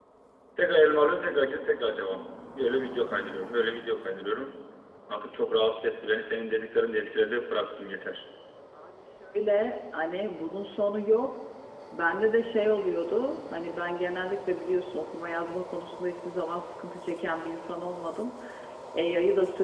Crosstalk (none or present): none